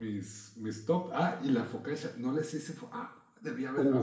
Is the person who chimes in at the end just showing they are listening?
No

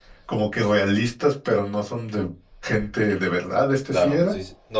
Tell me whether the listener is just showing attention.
No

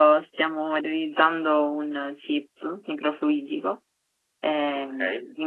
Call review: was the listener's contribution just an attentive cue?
Yes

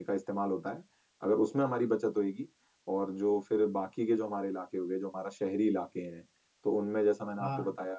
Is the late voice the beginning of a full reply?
No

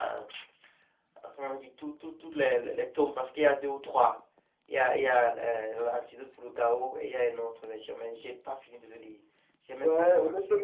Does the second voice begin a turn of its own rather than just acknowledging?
Yes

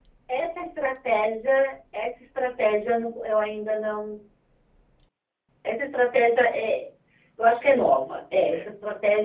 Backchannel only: Yes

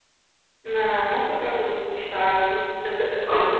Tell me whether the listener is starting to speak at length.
Yes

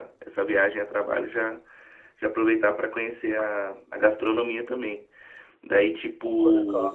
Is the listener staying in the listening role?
Yes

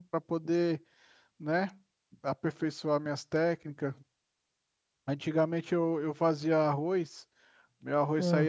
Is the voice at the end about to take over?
No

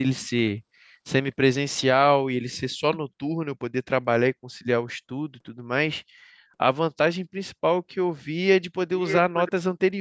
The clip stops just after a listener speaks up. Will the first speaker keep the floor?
Yes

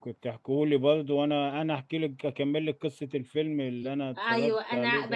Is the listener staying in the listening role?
No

